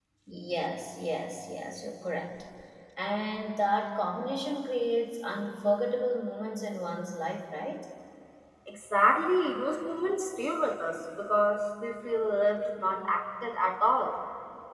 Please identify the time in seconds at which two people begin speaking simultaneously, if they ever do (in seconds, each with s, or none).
none